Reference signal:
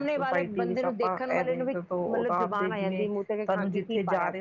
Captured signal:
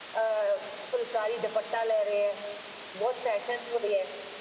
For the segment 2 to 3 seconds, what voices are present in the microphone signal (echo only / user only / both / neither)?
user only